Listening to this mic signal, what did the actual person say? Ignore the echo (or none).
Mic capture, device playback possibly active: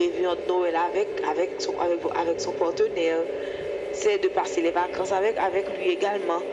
none